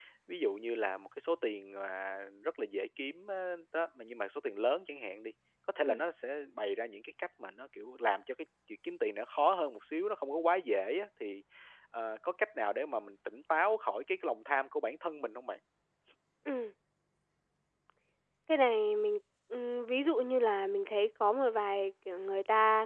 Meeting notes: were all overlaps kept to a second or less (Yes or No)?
Yes